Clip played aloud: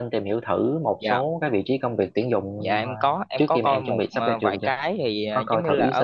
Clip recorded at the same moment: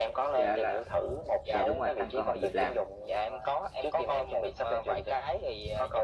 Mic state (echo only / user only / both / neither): both